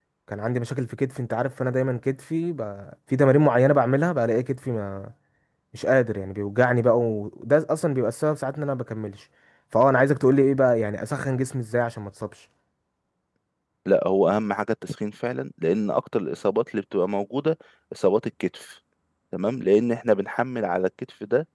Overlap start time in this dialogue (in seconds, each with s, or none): none